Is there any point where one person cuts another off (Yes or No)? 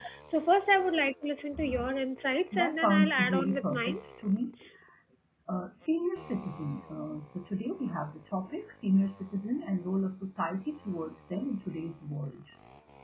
Yes